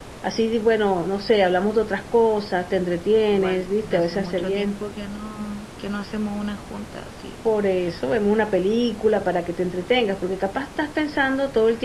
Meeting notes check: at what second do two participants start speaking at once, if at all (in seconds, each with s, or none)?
3.3 s